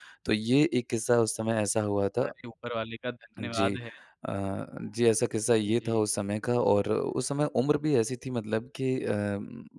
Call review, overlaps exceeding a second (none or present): none